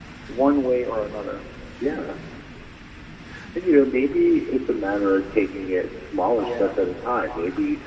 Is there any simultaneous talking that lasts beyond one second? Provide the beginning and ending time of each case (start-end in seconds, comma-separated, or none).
none